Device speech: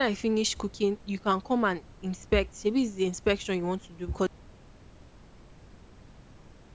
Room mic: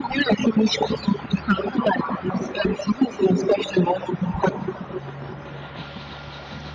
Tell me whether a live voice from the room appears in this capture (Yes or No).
No